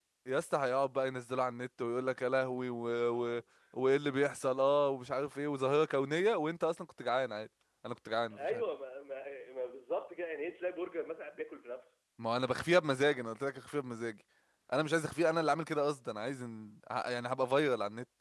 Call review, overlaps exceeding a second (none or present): none